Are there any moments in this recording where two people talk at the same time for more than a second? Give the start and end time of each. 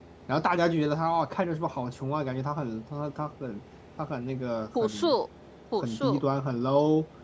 none

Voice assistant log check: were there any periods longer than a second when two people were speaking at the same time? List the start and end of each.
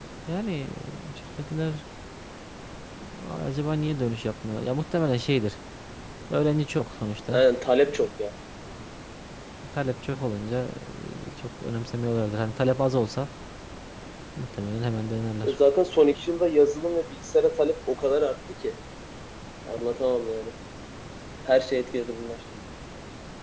none

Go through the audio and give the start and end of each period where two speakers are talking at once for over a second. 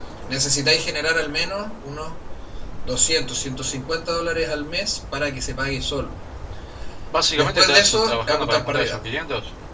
7.4-9.0

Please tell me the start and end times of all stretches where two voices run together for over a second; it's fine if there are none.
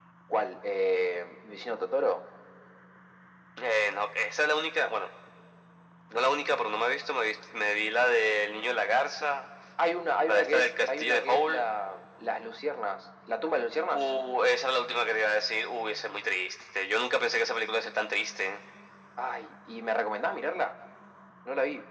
10.2-11.7

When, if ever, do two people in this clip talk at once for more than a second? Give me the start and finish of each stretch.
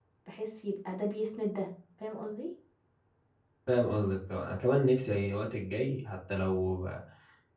none

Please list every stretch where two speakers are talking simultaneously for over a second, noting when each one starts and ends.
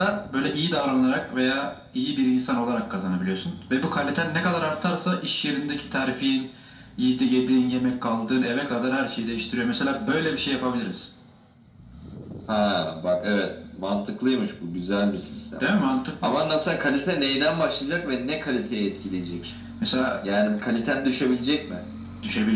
none

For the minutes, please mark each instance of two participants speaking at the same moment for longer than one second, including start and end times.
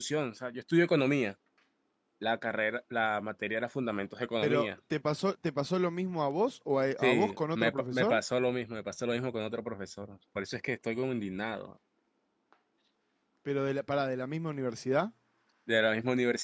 7.0-8.2

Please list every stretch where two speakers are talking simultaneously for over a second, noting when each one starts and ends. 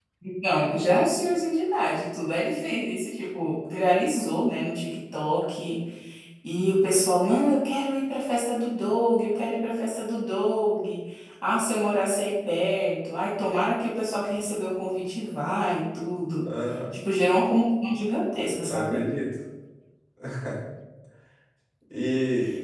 none

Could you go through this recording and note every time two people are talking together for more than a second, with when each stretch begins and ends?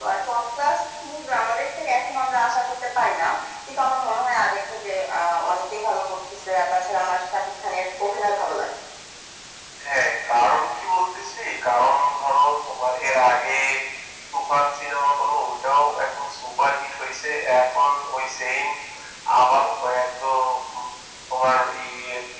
none

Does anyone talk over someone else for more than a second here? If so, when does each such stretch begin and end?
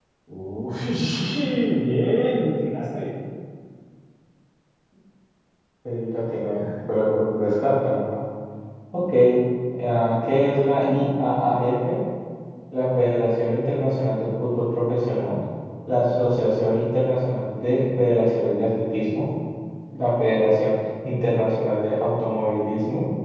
none

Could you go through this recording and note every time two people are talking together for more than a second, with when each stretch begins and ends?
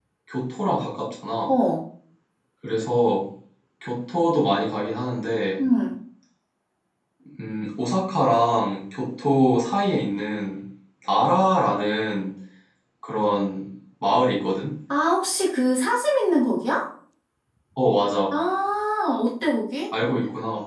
none

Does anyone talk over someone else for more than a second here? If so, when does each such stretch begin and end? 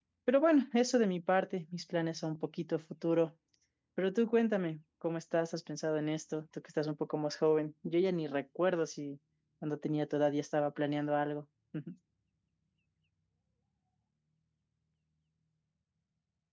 none

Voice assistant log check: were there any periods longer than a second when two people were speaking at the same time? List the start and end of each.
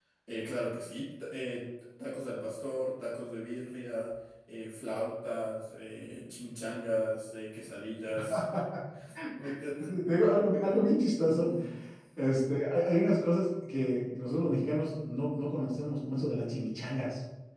none

